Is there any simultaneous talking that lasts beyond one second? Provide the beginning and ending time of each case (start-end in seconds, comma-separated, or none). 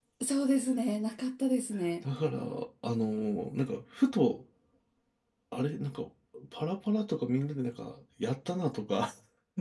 none